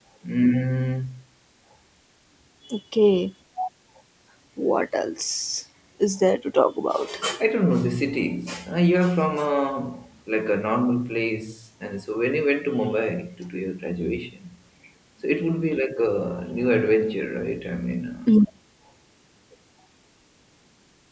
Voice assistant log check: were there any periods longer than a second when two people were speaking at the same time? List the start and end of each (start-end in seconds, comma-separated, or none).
none